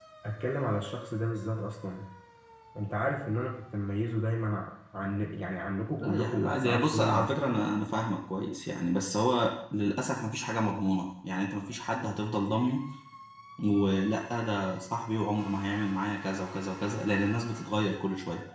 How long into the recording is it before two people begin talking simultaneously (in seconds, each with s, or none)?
6.0 s